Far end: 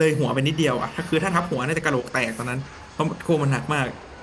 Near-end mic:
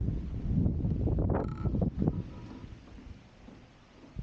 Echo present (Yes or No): No